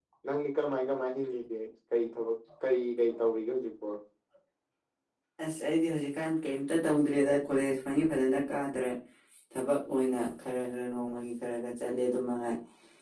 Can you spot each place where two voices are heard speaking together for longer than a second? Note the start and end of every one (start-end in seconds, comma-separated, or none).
none